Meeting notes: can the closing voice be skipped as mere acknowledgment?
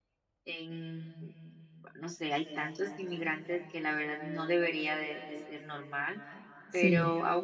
Yes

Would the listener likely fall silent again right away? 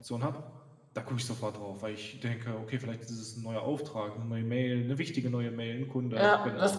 No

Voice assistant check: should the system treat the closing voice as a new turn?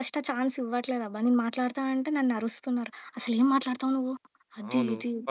Yes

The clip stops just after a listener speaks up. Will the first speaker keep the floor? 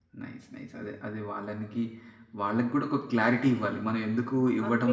Yes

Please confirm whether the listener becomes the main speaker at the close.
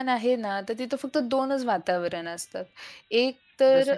No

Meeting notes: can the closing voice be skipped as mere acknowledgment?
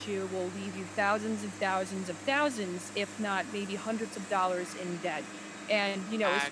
Yes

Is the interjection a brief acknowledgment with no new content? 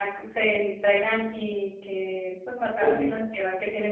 Yes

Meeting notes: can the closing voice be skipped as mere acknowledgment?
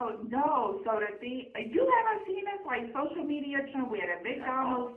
Yes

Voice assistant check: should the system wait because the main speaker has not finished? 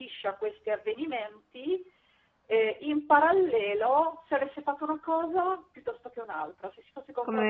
Yes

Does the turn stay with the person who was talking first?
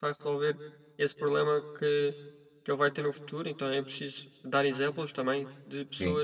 Yes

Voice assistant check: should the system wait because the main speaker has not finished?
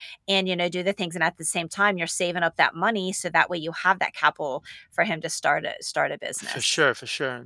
No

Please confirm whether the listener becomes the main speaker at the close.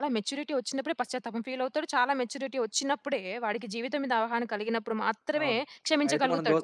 Yes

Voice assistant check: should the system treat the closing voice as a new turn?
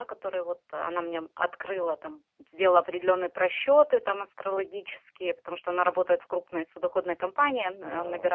No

